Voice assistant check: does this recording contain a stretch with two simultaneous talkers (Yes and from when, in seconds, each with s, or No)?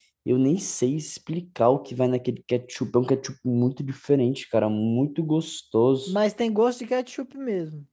No